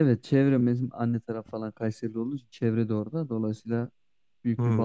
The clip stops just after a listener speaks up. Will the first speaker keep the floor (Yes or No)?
Yes